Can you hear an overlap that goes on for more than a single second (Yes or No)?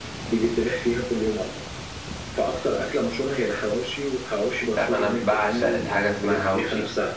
Yes